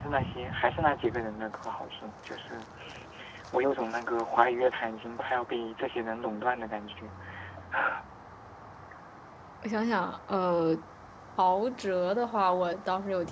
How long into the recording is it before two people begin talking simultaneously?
none

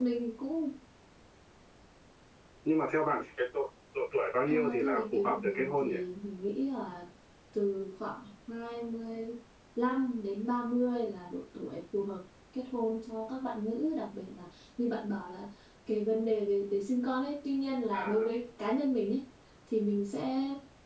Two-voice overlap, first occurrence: 4.5 s

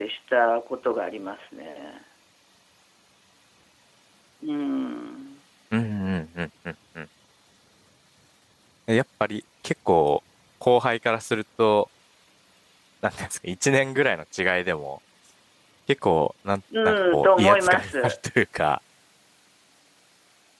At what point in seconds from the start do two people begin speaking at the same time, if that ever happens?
16.7 s

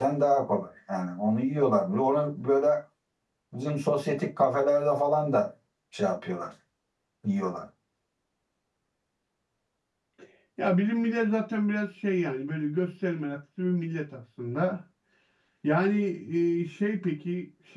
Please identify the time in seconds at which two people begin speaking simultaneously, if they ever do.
none

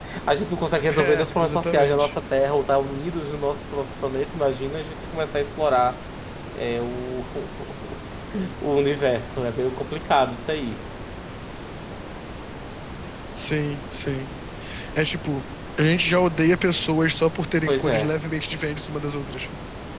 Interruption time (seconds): 0.9 s

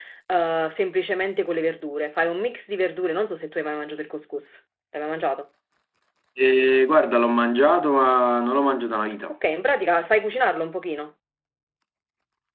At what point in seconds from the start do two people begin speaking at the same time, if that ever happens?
none

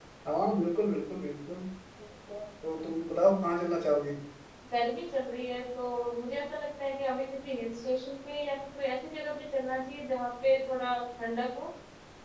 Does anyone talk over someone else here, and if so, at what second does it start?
none

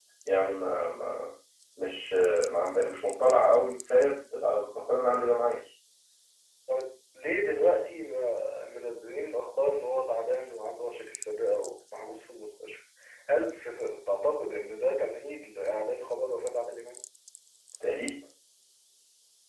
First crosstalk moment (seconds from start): none

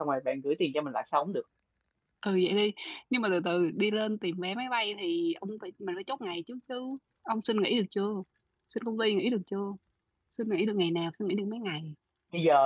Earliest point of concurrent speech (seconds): none

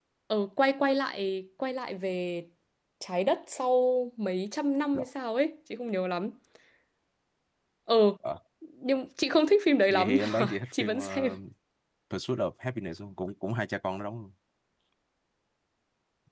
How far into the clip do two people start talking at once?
9.9 s

